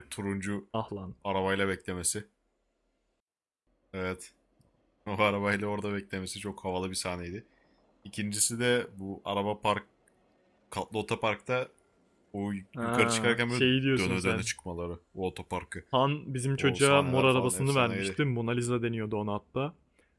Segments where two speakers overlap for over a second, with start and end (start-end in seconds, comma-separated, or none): 12.8-14.5, 16.6-18.1